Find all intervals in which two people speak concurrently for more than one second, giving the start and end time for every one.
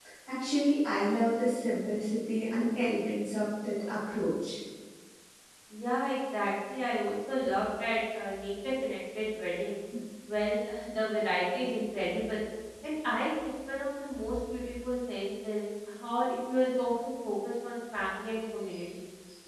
none

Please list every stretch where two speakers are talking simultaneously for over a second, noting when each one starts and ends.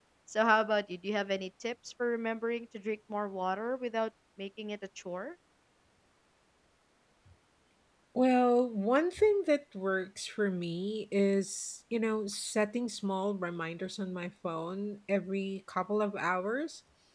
none

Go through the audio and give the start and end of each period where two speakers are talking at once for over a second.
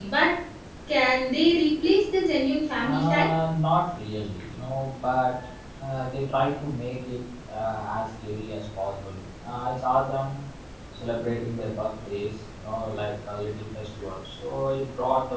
none

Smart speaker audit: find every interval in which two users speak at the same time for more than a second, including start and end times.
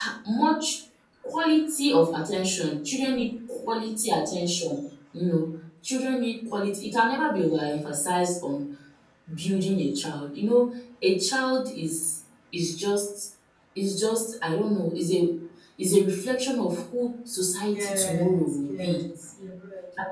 17.7-19.0

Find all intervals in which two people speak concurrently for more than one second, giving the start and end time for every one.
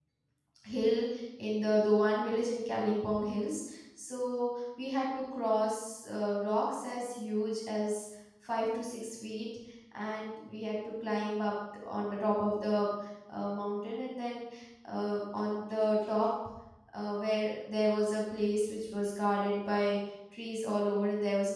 none

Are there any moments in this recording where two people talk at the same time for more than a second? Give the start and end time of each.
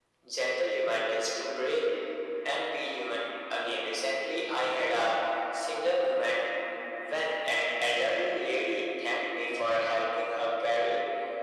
none

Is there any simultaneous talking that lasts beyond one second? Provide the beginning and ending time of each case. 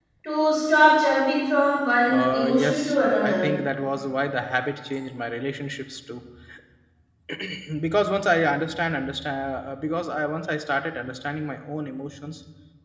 2.1-3.5

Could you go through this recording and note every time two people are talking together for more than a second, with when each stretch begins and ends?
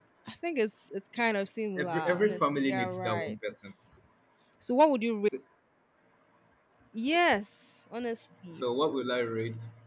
1.8-3.3

